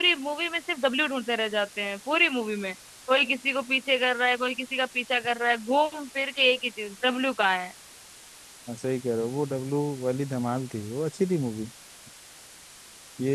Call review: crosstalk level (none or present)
none